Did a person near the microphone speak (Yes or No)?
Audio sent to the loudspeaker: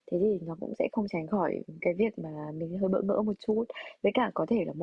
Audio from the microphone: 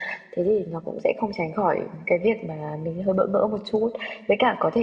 No